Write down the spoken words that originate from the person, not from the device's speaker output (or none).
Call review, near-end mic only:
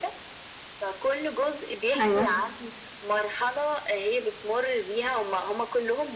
ايوه